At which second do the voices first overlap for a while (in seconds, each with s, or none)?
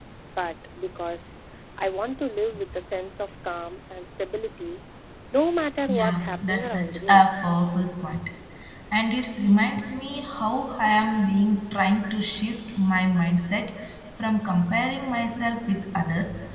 5.9 s